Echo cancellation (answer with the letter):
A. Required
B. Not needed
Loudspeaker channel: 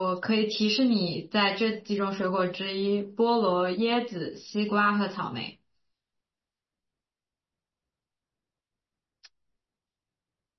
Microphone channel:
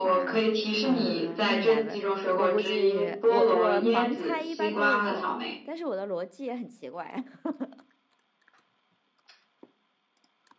A